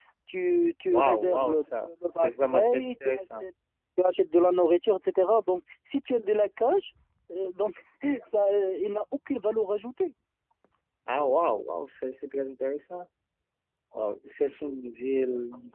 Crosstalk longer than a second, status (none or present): present